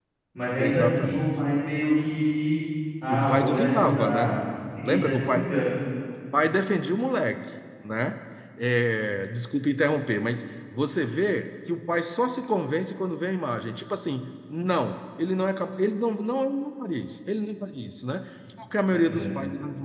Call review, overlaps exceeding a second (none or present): present